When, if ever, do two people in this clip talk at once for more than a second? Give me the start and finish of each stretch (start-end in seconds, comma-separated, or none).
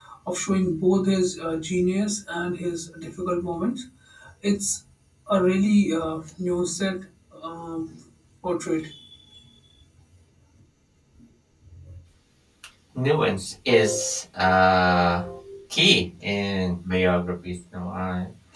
none